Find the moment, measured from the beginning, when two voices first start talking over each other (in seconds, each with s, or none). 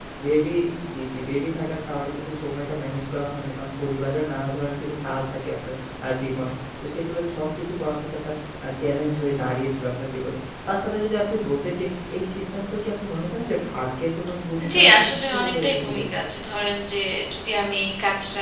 14.6 s